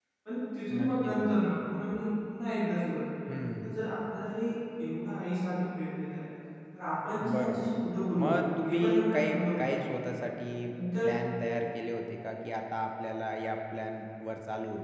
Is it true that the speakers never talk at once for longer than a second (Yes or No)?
No